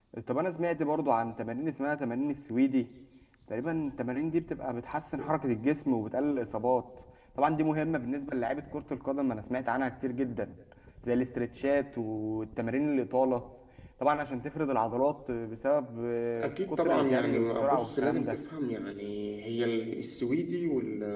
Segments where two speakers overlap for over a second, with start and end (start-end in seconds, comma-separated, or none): 16.4-18.4